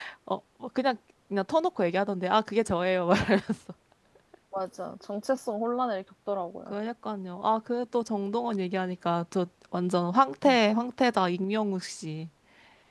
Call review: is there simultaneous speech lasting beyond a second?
No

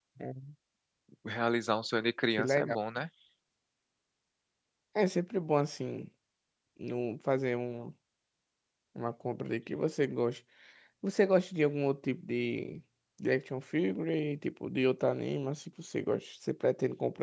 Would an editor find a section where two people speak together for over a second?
No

